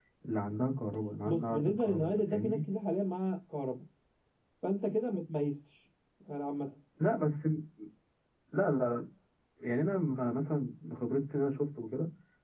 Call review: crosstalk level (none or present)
present